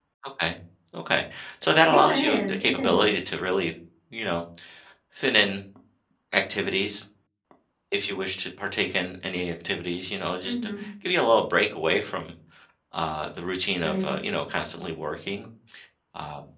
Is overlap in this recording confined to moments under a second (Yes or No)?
No